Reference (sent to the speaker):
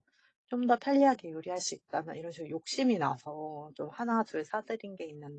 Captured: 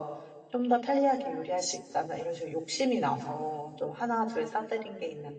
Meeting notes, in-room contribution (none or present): none